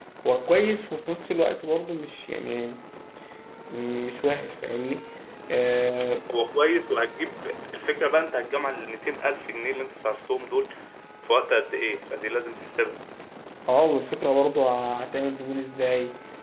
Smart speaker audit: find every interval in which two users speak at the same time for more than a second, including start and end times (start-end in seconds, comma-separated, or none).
none